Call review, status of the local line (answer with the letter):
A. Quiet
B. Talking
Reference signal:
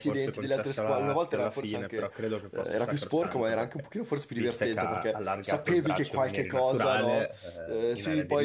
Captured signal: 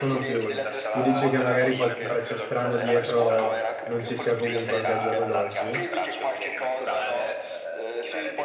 B